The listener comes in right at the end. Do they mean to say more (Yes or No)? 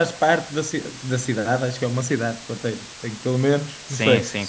Yes